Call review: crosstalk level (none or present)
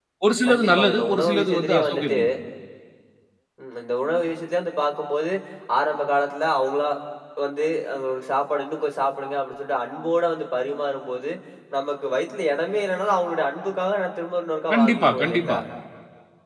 present